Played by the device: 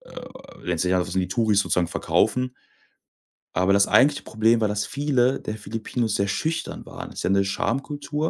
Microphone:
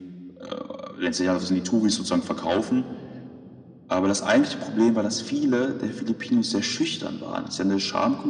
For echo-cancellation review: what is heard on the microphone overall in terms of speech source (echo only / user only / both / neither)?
echo only